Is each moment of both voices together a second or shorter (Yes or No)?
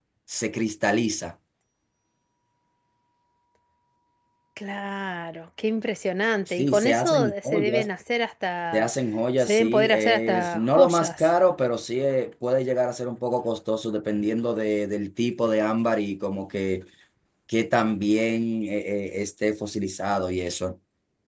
No